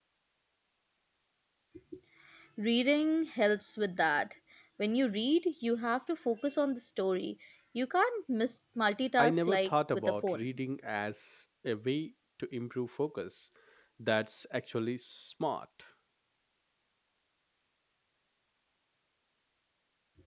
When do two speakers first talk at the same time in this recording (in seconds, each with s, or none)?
9.2 s